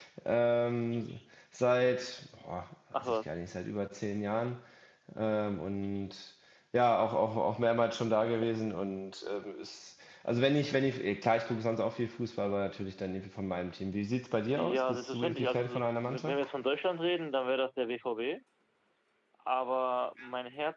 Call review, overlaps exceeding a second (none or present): present